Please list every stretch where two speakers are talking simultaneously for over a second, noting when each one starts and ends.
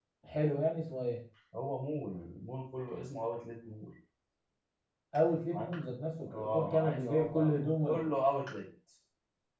6.3-8.0

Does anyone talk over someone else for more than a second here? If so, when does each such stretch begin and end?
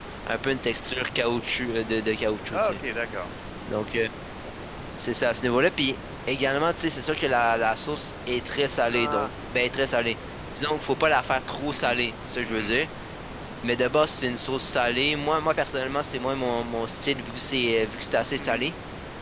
none

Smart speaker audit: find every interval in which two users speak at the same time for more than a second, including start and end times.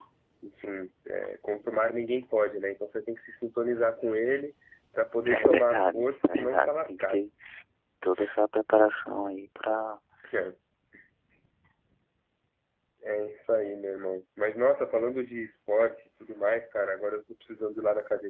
5.4-7.2

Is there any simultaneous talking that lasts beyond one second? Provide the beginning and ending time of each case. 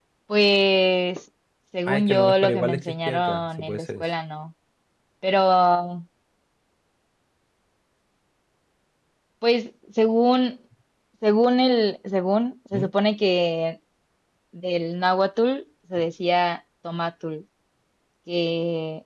1.9-4.1

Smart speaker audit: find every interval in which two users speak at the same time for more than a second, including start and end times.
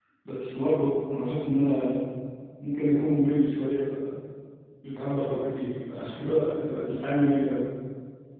none

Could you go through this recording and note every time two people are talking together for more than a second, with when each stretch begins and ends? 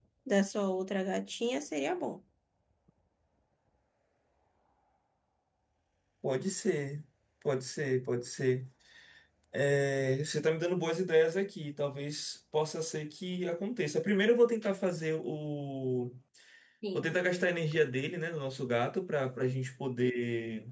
none

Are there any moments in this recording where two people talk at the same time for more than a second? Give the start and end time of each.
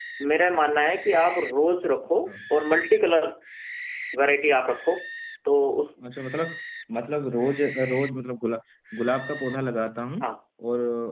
none

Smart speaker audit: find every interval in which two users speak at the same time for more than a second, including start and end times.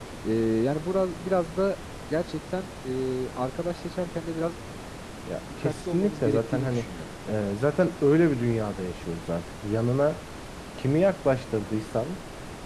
5.6-6.9

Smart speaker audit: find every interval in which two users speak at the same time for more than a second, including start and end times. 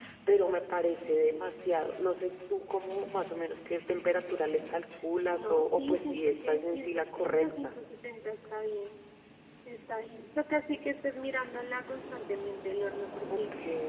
5.2-7.7

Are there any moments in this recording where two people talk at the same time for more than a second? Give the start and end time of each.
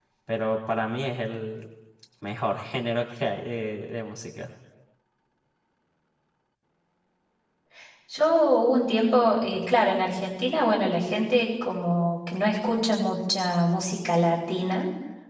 none

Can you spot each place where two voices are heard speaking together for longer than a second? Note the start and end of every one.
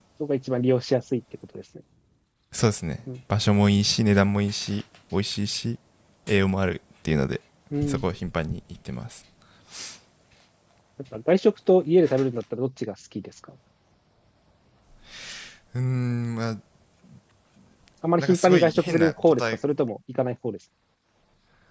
18.2-19.4

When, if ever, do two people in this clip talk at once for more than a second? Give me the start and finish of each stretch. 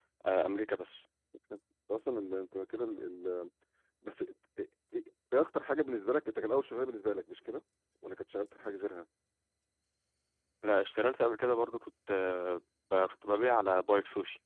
none

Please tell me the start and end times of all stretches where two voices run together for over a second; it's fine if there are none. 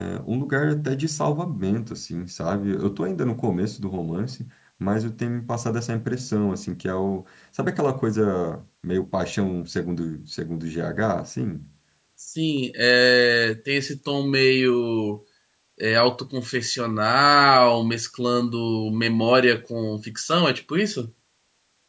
none

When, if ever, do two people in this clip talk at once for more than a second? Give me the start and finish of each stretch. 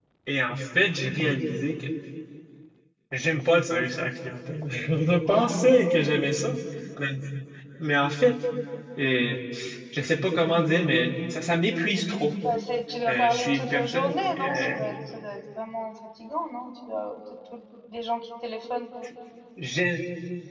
13.1-14.8

